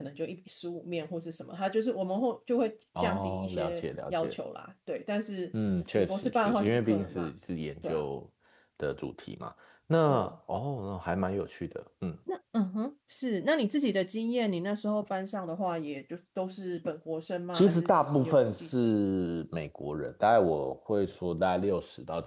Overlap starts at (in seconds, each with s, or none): 3.0 s